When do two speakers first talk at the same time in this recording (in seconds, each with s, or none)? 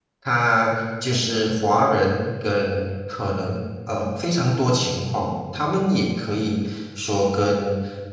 none